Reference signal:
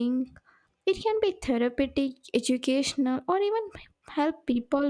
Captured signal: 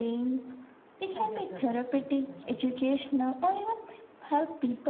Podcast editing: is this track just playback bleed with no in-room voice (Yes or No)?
No